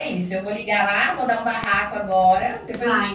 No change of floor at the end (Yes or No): No